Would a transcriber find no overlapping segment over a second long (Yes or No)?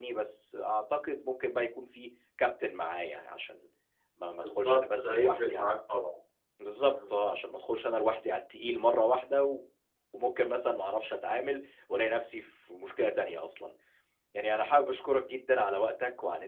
No